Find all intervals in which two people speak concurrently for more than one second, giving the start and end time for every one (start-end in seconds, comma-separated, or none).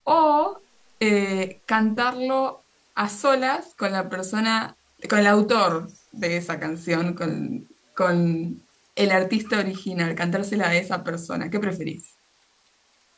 none